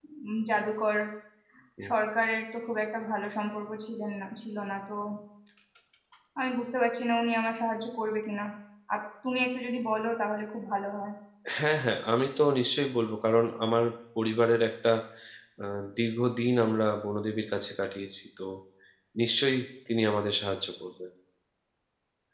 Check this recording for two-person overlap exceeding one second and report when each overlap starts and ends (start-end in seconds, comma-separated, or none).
none